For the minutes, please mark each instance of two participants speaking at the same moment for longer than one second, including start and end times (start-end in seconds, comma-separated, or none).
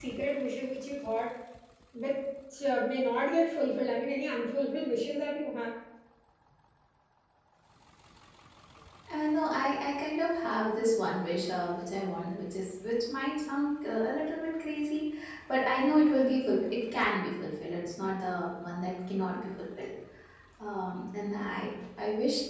none